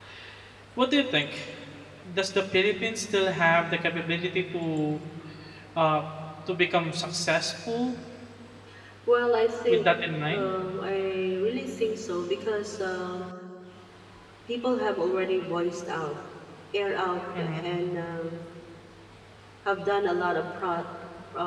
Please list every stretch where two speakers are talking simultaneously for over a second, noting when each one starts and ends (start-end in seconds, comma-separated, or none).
none